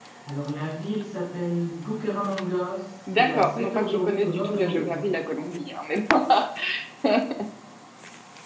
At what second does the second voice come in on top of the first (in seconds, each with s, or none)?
3.1 s